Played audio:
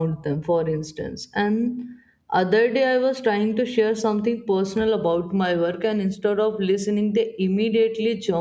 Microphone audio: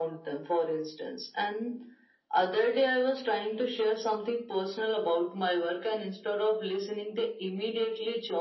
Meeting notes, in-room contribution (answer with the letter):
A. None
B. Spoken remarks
A